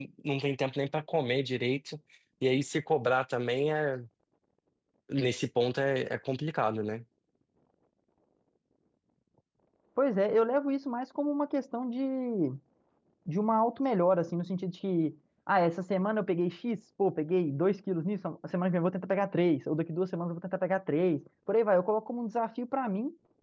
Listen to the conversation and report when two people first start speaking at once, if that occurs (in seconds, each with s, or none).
none